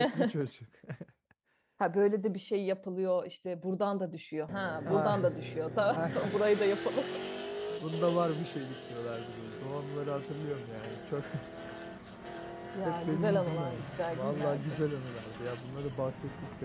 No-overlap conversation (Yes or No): No